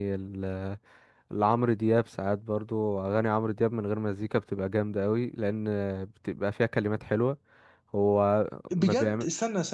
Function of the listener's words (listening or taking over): taking over